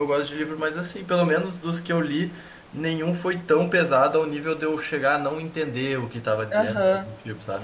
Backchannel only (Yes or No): No